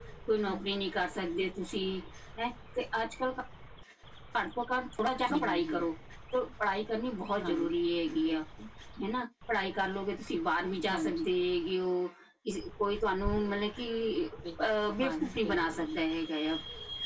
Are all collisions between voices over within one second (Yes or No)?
No